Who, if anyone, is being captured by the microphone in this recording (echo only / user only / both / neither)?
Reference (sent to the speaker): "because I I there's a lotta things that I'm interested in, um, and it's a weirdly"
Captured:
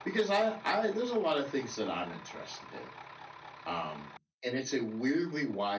echo only